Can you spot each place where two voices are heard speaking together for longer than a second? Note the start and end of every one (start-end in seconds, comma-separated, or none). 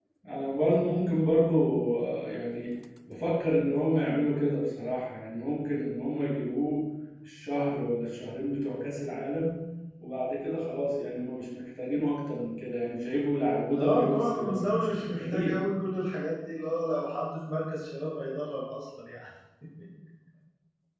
13.8-15.6